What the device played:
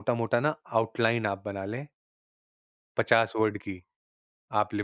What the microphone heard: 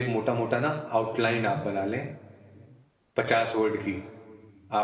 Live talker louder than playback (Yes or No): No